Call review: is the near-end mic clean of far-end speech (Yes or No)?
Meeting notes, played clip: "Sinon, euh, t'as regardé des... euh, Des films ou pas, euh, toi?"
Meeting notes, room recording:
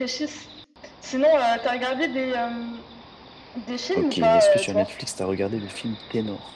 No